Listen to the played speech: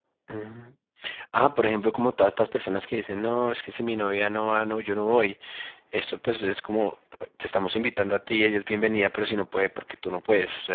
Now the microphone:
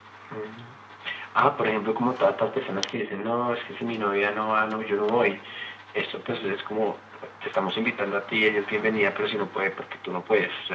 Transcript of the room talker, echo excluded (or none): none